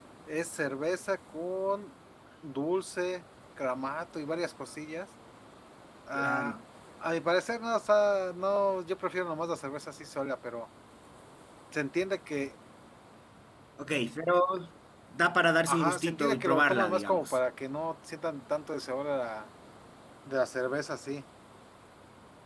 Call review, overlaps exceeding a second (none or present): present